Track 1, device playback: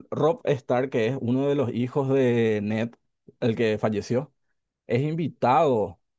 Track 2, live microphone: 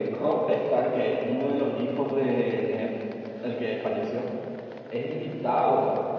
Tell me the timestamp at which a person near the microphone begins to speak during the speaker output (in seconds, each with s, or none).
none